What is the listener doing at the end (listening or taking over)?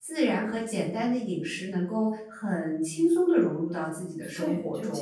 taking over